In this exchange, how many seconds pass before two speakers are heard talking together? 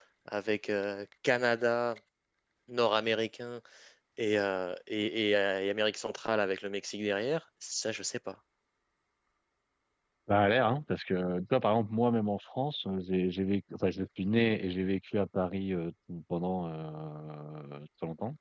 none

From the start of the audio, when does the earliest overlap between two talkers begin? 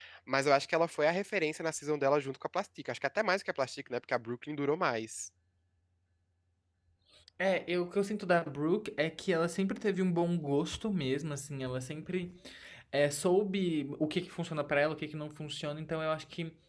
none

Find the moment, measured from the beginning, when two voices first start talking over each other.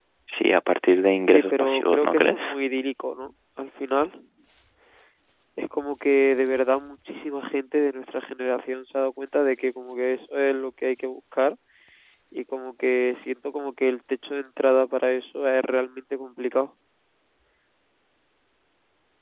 1.3 s

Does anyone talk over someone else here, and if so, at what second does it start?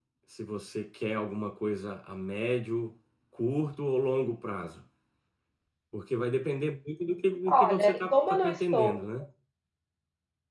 7.5 s

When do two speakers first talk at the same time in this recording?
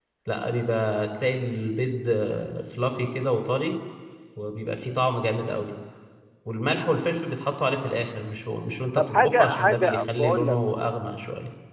9.0 s

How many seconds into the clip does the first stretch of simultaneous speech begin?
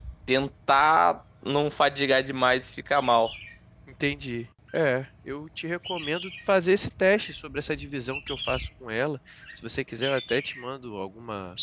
none

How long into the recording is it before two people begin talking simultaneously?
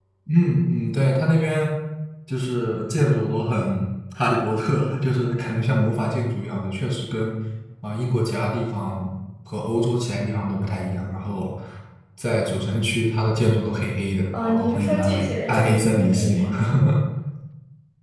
14.3 s

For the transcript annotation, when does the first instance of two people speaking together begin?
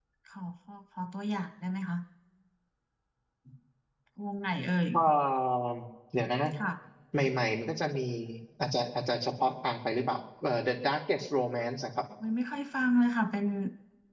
none

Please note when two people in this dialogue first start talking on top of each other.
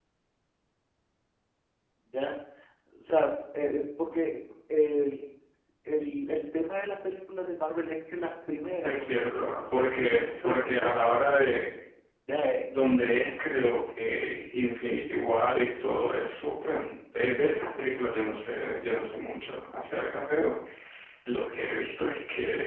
8.8 s

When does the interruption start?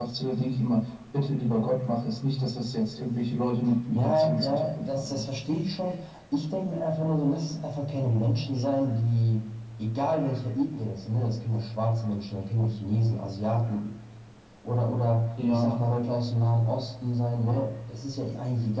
3.9 s

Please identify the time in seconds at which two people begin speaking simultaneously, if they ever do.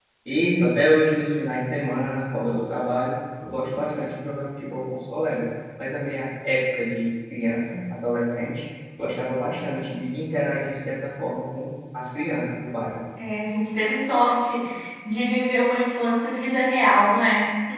none

